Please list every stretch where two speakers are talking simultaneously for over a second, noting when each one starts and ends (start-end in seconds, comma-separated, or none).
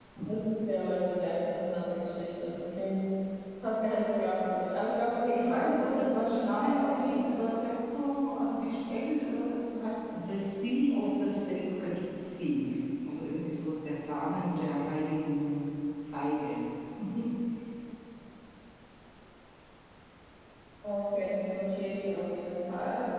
5.3-7.3